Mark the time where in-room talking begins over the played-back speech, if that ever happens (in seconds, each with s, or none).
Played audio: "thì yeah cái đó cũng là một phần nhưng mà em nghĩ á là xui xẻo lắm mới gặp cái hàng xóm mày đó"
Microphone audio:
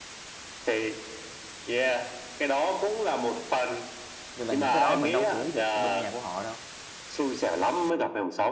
4.3 s